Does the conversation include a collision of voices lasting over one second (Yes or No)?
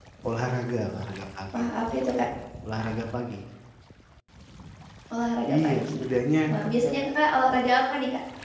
No